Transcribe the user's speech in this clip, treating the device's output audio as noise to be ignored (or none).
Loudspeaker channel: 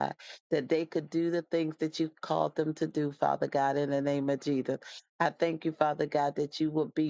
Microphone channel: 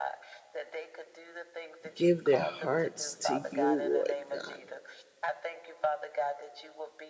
give their hearts to you, Lord God.